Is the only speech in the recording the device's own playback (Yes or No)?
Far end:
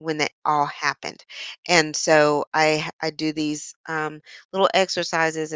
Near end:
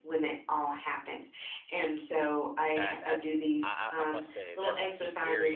No